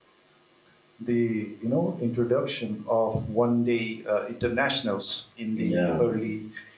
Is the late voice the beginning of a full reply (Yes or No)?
No